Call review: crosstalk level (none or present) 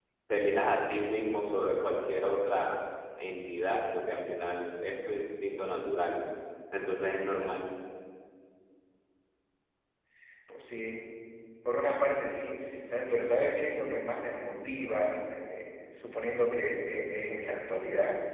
none